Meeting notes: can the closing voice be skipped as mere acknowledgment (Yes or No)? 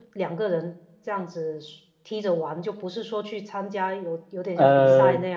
Yes